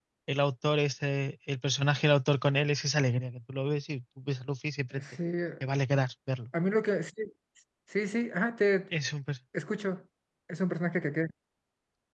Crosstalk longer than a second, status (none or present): none